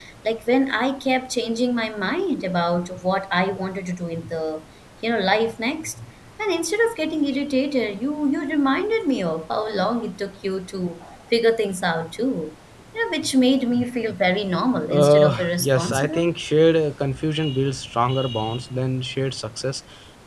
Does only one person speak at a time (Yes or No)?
No